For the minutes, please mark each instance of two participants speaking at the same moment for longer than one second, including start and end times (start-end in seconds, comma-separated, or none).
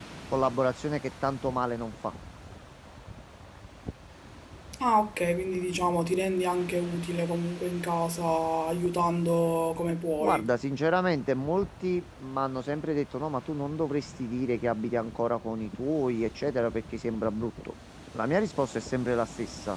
none